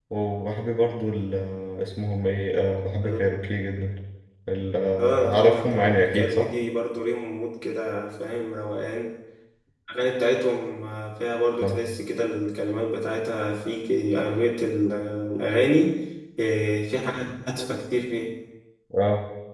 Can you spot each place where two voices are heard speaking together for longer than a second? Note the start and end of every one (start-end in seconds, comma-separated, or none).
5.0-6.5